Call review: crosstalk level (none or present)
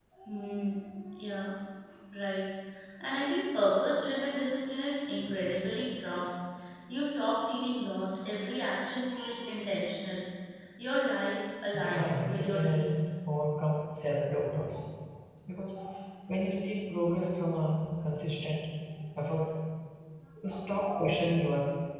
present